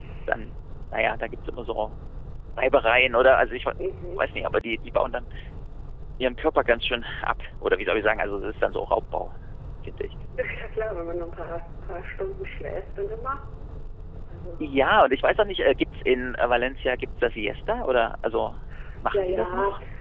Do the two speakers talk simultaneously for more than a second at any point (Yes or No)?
No